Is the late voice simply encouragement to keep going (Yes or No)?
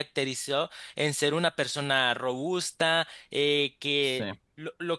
Yes